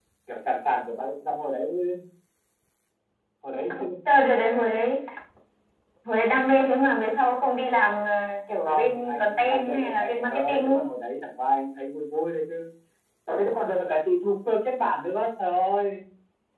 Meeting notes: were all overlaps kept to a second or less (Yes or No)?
No